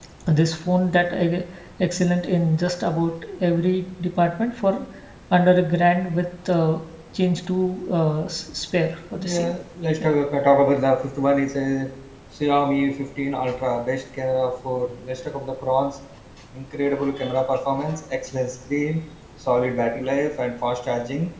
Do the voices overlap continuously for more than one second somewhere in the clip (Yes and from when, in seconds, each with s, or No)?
No